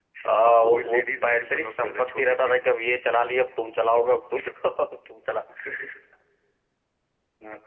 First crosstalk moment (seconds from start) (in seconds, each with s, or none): 0.6 s